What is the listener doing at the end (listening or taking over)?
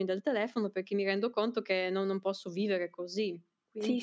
taking over